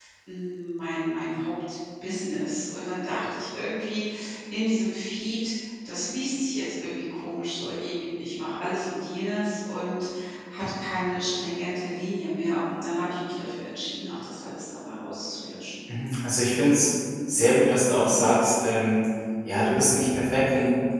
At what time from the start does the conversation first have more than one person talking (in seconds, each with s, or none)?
none